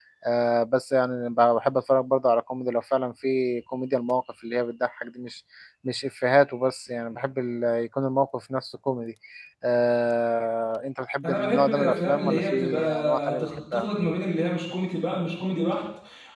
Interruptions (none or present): present